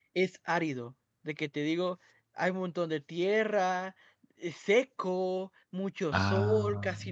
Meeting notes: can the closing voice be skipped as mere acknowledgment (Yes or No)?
Yes